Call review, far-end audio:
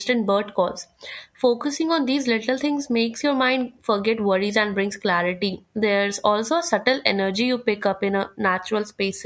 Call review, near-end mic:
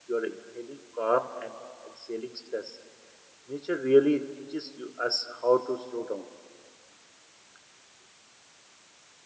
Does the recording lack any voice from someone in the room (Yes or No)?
No